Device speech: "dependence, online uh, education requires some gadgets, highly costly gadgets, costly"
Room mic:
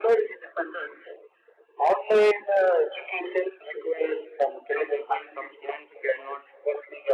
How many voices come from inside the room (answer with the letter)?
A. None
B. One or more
B